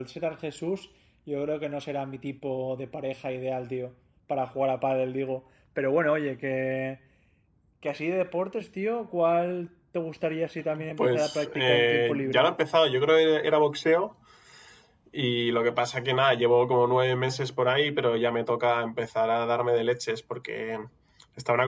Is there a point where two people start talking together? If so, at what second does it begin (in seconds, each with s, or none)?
10.7 s